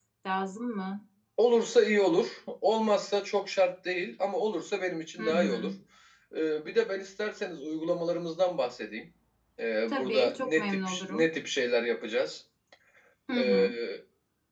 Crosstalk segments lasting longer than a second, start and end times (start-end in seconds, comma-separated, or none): 9.9-11.2